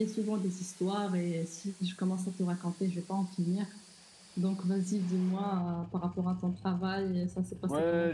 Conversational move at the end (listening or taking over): taking over